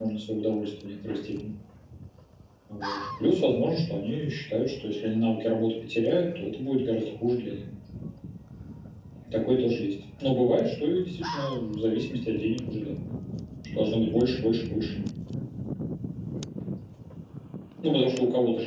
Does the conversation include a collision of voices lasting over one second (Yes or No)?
No